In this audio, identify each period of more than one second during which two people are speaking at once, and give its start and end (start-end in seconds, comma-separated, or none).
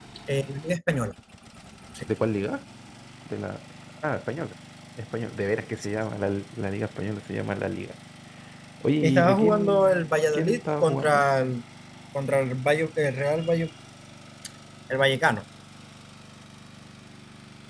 9.0-11.2